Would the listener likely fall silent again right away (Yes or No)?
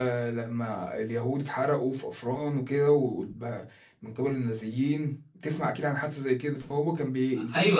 No